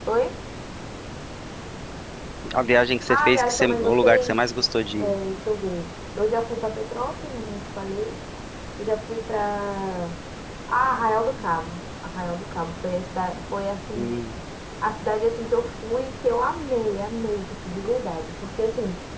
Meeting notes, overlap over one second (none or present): present